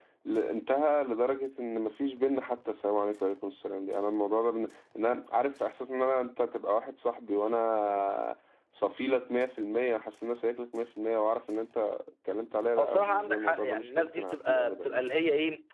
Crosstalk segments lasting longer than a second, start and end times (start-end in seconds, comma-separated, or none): 12.8-15.0